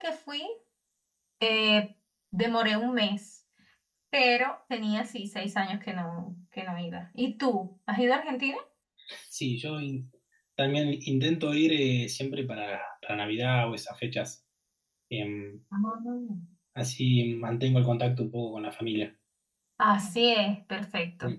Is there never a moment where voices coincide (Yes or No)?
Yes